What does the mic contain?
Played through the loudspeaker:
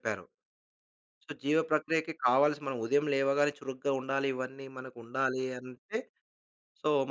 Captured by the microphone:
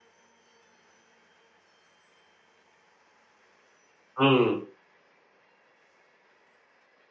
user only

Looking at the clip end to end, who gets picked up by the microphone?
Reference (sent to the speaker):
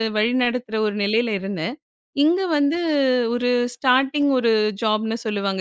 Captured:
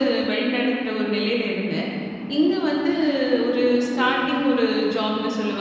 both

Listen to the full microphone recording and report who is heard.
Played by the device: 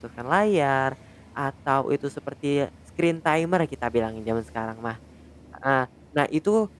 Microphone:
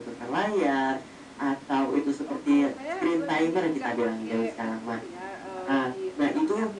both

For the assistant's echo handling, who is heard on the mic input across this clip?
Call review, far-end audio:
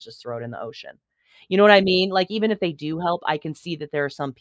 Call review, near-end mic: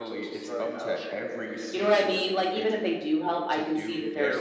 both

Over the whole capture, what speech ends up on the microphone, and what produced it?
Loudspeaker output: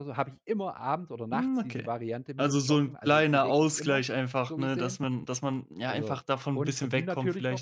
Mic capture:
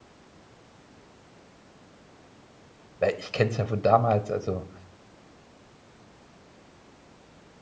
user only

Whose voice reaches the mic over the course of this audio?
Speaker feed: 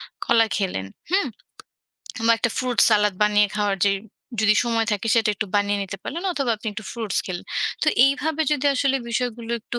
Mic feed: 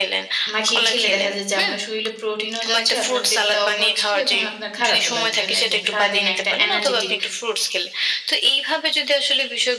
both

